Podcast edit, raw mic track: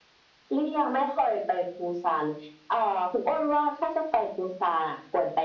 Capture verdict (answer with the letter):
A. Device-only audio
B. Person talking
A